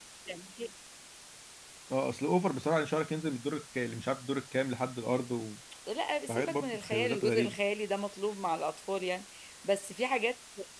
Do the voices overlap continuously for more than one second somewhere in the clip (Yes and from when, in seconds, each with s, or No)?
Yes, from 6.3 s